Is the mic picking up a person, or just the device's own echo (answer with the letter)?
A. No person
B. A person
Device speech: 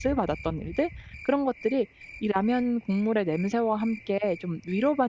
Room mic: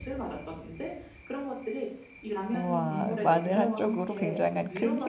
B